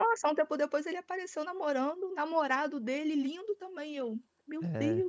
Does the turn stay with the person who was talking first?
No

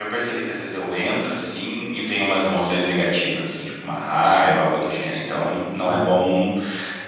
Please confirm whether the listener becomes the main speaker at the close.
No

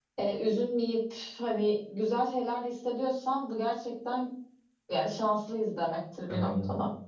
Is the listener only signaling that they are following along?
No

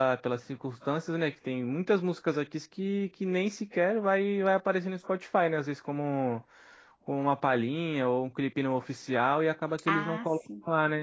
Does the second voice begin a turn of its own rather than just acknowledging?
No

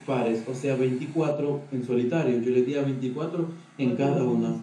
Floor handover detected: Yes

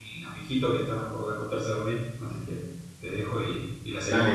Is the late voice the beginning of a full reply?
Yes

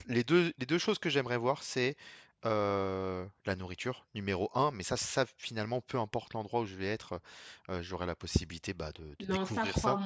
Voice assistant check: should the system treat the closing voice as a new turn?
Yes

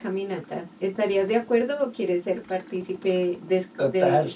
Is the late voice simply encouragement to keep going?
No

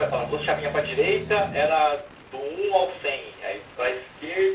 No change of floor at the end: Yes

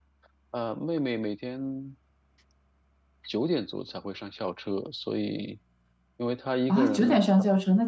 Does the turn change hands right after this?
Yes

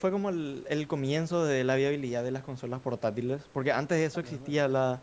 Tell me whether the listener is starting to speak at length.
No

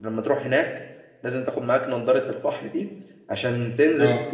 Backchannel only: Yes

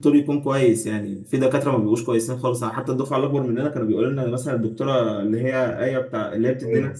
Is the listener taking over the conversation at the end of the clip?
No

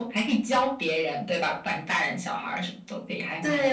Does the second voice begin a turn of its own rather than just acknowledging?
Yes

